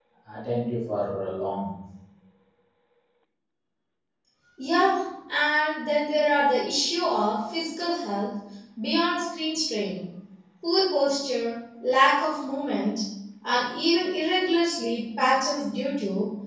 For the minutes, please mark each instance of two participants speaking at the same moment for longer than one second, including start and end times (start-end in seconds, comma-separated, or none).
none